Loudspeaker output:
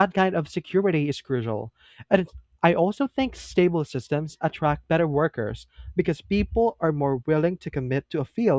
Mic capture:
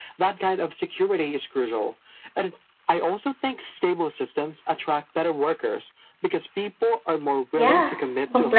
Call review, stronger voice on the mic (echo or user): user